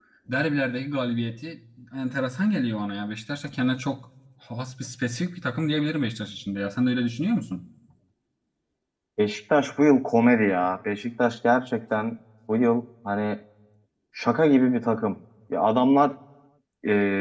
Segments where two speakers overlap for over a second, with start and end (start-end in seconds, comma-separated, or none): none